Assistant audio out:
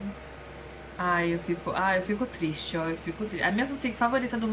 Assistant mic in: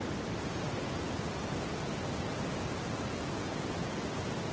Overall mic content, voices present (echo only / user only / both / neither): neither